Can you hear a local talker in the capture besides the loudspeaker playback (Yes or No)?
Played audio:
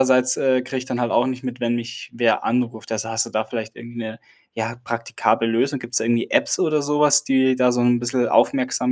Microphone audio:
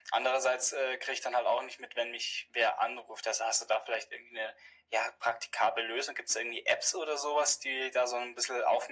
No